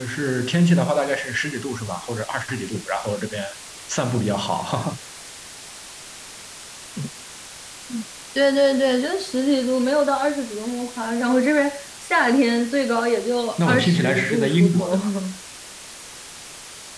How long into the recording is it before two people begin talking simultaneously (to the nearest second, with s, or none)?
14 s